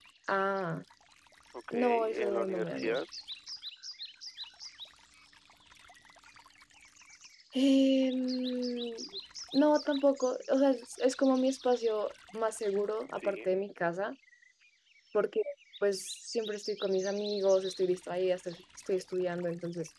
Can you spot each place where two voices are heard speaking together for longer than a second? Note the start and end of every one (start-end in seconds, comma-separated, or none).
1.7-3.0